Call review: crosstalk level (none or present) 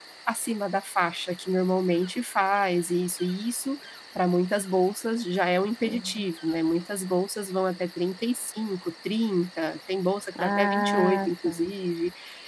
present